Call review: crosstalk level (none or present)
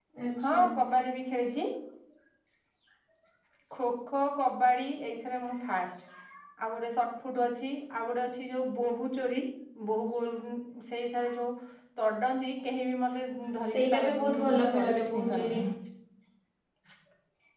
present